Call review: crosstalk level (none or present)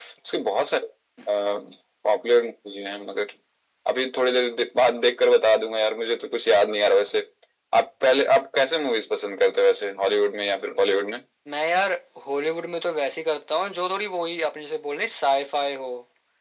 none